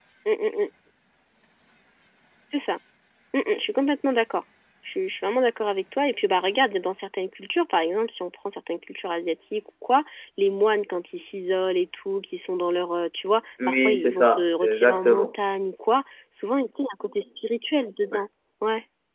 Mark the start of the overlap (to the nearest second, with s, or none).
14 s